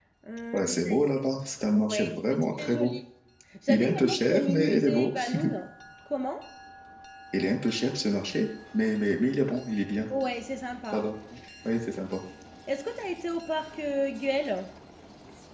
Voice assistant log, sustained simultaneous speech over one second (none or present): present